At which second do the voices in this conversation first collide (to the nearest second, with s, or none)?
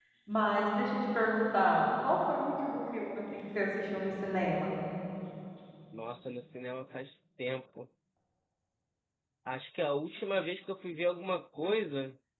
none